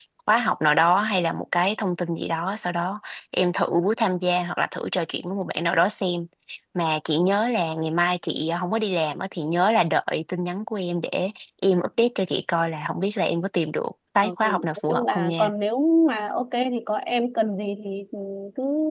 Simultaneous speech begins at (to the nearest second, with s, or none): 14 s